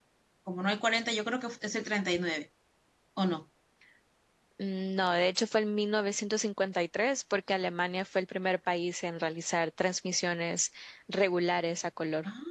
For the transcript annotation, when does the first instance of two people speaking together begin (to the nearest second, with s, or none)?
none